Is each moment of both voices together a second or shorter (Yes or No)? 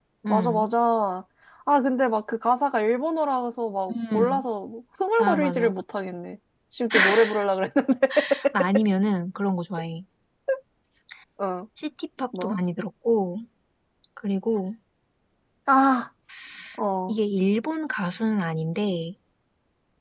Yes